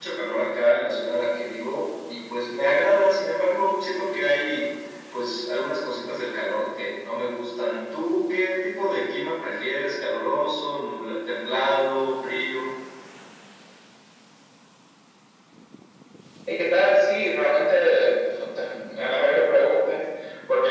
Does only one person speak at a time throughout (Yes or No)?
Yes